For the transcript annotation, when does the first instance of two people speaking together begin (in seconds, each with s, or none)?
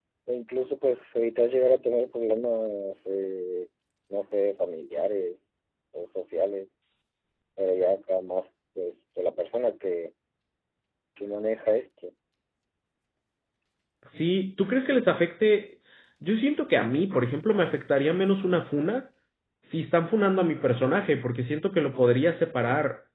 none